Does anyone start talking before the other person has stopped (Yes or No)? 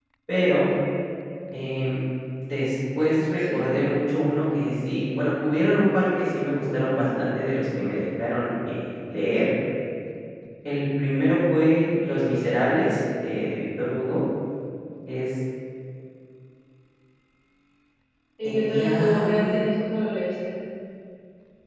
Yes